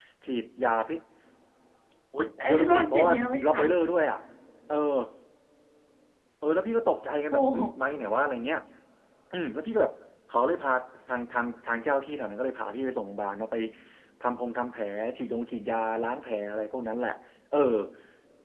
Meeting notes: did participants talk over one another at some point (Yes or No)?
Yes